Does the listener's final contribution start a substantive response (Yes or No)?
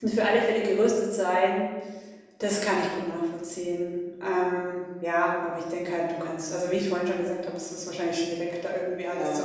No